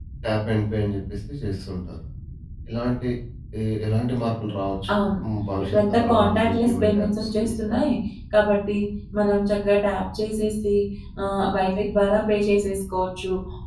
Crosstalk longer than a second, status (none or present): present